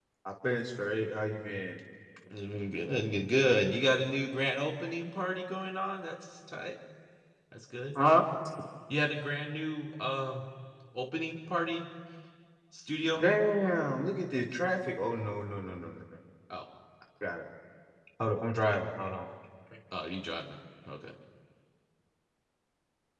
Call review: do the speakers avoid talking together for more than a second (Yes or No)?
Yes